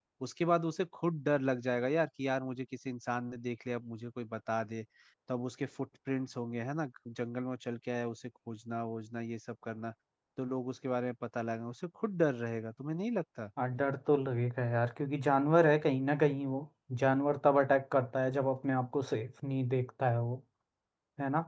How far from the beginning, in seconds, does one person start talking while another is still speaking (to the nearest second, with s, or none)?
none